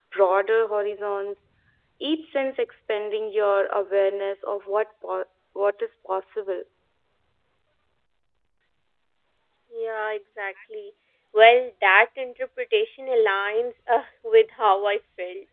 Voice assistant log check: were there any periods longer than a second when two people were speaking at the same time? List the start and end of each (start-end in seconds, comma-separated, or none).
none